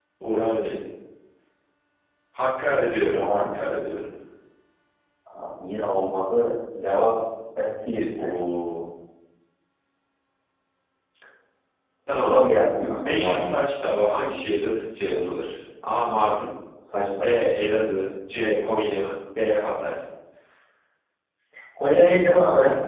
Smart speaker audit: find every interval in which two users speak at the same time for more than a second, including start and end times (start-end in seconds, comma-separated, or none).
12.2-13.5